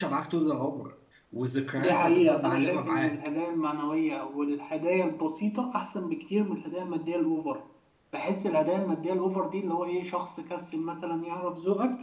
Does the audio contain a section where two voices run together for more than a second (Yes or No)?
Yes